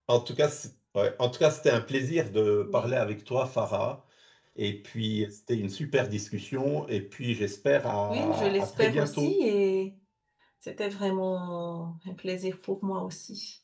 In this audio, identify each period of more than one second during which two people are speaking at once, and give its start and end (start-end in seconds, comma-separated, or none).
8.1-9.3